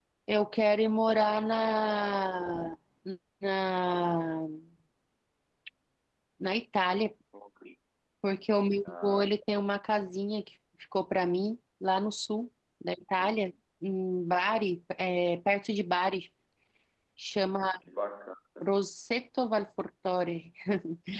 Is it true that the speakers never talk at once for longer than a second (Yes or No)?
Yes